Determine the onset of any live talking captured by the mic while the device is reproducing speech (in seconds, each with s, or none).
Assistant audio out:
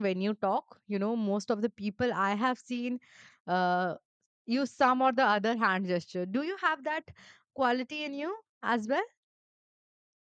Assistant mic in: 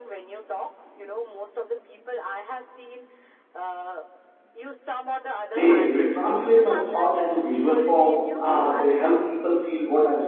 5.5 s